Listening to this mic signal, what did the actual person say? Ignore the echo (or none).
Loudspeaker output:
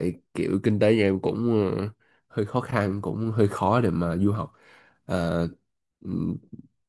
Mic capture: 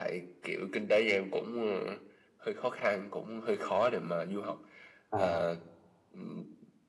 à